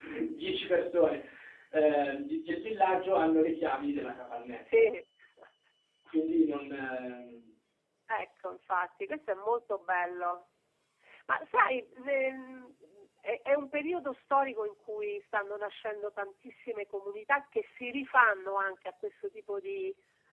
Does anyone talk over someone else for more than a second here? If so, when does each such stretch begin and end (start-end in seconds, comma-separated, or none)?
none